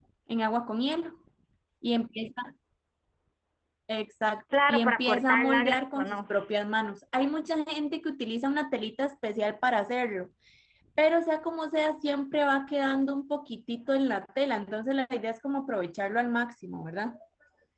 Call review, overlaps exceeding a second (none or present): present